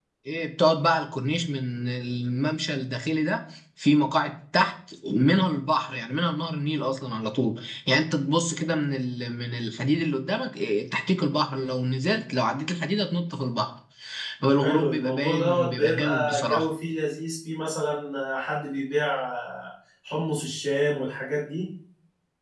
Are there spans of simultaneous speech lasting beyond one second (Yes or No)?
Yes